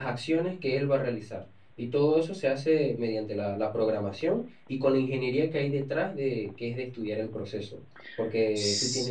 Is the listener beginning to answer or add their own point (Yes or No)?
Yes